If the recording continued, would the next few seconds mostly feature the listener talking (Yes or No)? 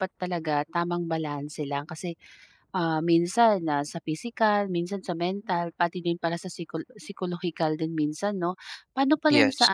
No